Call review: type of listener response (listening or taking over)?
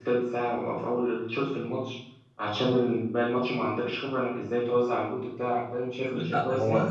taking over